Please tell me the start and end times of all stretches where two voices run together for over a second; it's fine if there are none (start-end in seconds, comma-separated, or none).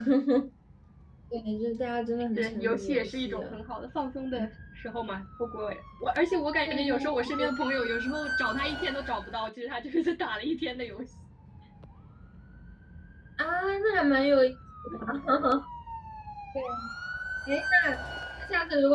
2.4-3.6